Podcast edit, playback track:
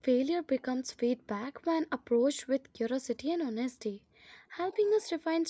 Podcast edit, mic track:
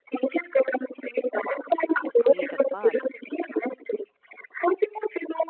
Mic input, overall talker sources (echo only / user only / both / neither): both